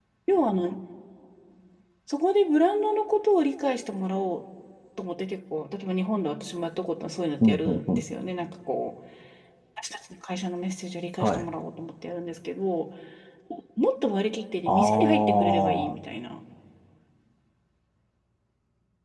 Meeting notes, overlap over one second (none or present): present